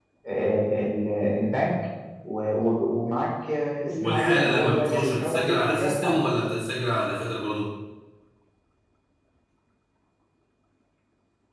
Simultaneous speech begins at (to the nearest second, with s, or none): 4 s